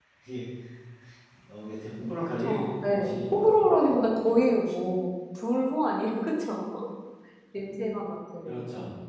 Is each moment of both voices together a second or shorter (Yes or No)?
No